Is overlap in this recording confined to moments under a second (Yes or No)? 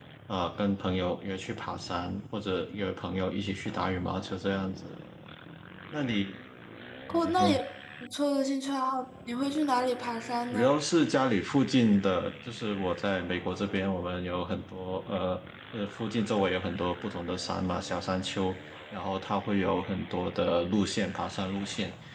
Yes